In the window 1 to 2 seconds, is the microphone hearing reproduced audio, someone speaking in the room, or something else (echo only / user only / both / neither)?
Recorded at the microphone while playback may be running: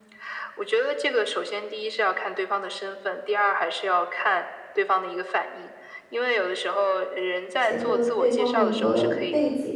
echo only